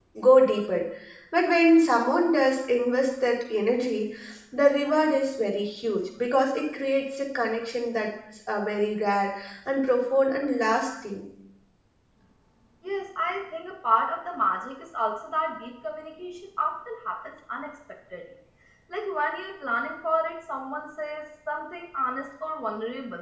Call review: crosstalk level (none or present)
none